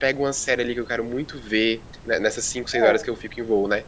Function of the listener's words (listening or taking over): listening